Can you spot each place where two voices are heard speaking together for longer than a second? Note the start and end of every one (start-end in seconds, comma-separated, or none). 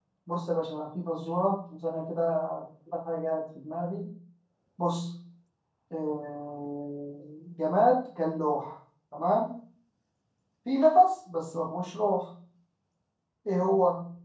none